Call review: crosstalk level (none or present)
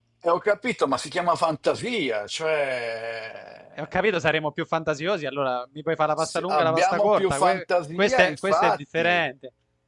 present